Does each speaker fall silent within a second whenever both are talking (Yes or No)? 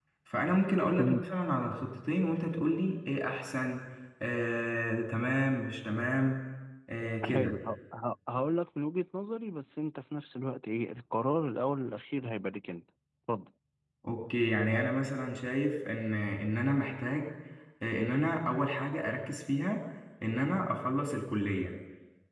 Yes